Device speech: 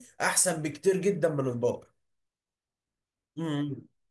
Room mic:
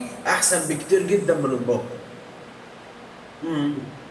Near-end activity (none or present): none